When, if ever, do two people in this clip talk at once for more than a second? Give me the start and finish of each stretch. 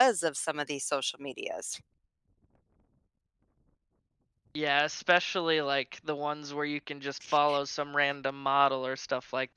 none

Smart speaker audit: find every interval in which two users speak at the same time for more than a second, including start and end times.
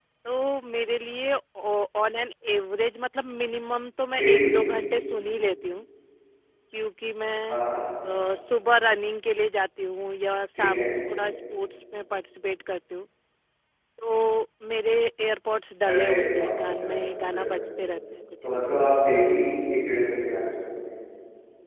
15.9-17.6

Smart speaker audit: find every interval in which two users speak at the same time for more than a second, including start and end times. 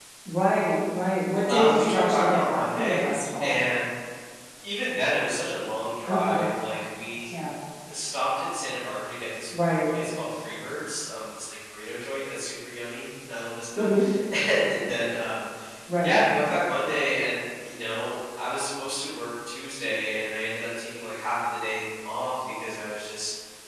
1.5-3.6

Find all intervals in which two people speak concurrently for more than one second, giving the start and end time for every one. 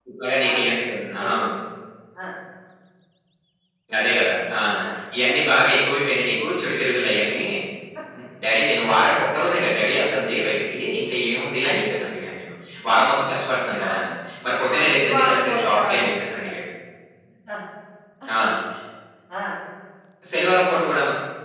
14.5-16.0

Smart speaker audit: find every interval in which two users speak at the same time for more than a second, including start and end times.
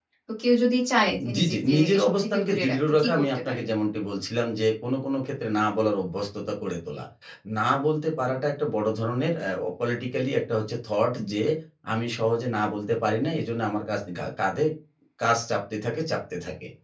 1.3-3.6

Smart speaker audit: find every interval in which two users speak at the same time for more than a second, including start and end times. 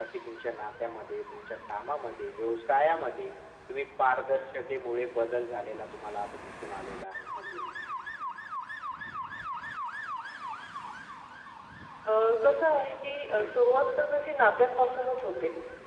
none

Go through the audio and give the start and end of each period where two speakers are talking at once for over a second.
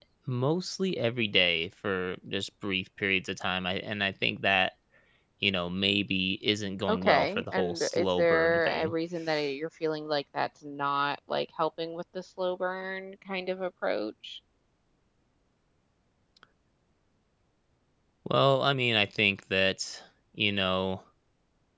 6.9-8.9

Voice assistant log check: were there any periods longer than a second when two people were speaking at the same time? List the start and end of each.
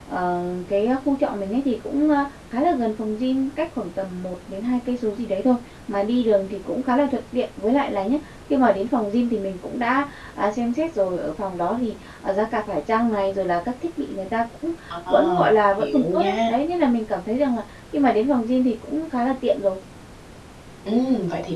15.1-16.5

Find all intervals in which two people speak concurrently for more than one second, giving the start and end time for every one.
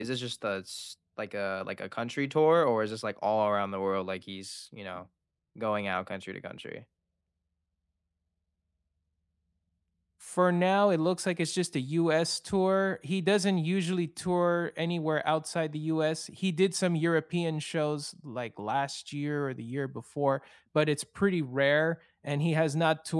none

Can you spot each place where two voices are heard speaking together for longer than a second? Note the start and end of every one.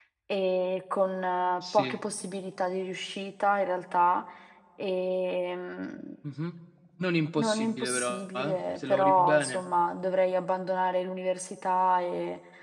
7.4-9.6

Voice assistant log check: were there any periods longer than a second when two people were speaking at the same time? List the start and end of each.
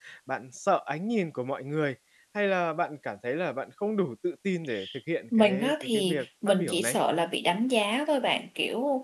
5.4-7.0

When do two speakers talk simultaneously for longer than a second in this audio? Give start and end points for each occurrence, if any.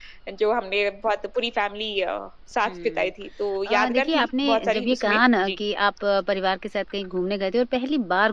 3.7-5.6

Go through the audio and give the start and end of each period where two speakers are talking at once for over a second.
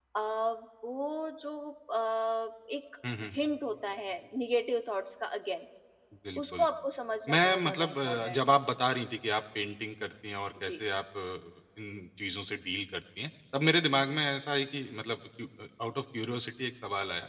7.3-8.6

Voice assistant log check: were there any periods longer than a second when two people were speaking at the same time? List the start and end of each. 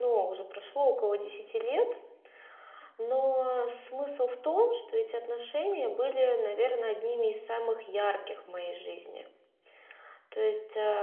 none

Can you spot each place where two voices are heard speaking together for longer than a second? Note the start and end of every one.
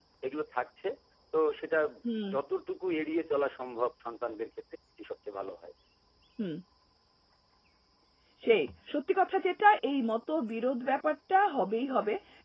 none

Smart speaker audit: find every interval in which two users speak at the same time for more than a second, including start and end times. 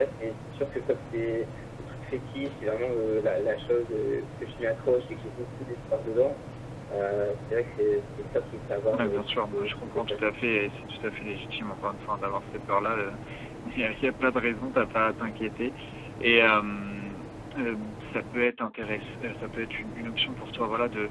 9.0-10.2

